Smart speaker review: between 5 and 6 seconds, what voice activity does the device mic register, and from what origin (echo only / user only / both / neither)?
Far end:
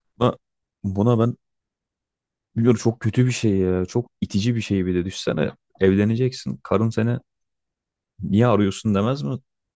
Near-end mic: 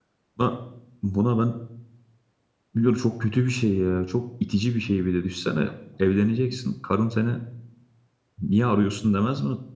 echo only